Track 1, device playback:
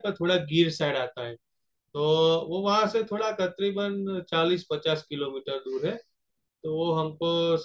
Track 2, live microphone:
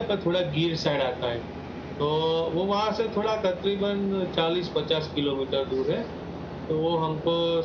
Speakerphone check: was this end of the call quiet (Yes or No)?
Yes